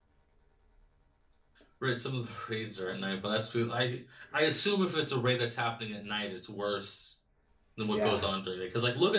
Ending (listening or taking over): listening